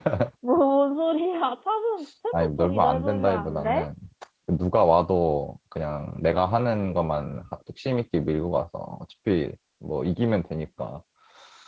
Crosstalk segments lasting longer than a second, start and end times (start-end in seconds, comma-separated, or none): 2.3-3.9